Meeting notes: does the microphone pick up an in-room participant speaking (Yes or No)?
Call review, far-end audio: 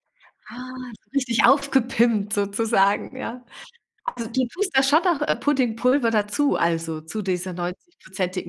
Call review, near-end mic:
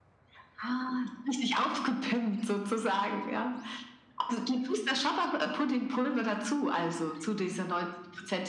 No